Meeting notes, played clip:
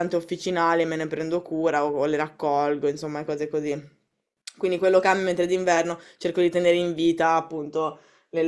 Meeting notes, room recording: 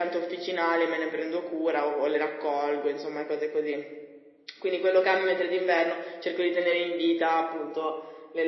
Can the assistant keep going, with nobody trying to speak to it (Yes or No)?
Yes